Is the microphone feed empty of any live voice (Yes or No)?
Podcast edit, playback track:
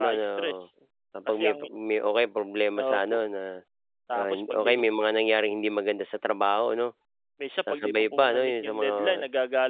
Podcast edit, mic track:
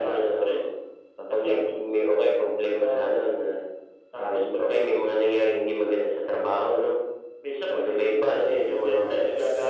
Yes